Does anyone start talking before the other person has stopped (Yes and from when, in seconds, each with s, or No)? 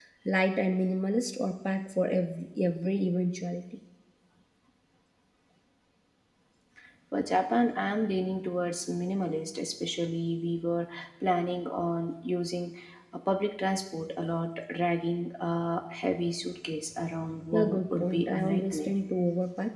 Yes, from 17.5 s